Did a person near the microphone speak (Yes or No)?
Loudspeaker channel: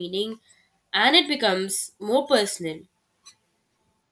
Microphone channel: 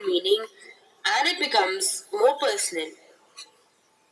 No